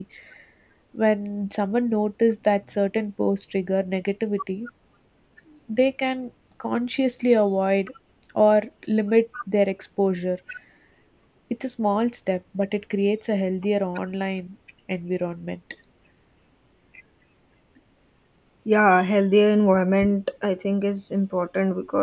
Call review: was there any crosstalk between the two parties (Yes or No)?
No